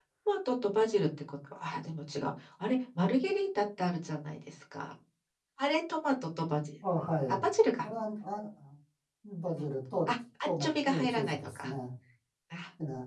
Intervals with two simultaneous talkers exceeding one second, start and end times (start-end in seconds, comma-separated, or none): 10.5-11.7